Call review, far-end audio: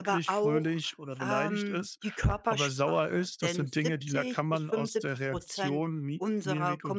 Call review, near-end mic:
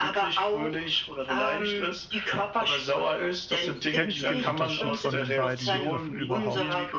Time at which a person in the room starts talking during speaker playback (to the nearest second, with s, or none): 4 s